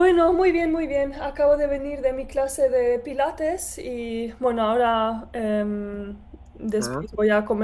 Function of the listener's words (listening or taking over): listening